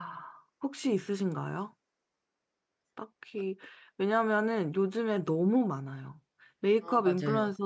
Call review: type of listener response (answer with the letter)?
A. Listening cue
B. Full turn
A